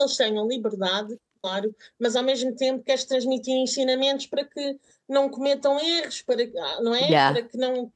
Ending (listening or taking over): listening